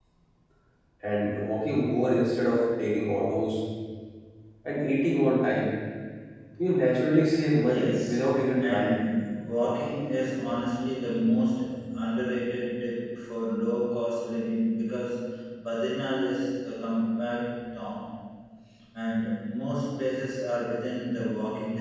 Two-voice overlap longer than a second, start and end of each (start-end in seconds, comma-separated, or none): 7.6-9.0